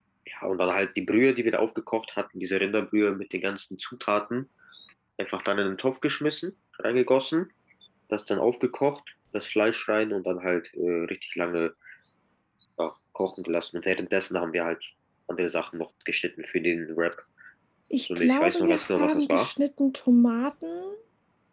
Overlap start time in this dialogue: 18.0 s

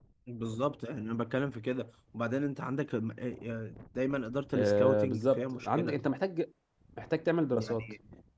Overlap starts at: 4.5 s

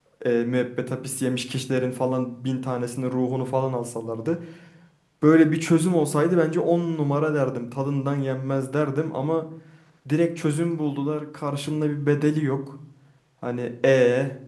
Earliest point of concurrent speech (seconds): none

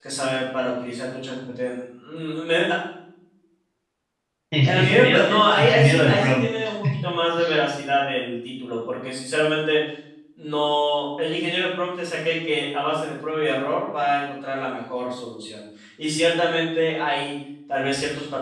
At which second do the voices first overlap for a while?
4.7 s

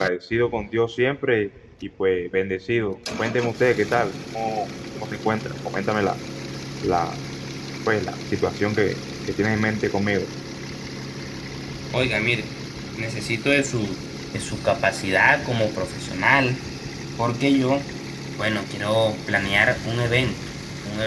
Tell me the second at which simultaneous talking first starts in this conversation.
none

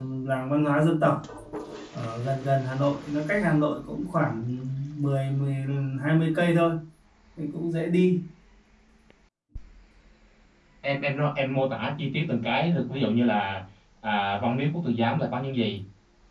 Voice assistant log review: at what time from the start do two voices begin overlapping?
none

